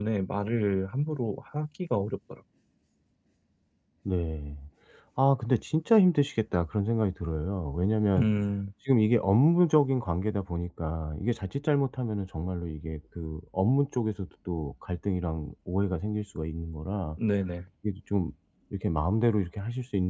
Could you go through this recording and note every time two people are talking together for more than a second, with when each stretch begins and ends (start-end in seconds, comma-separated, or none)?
none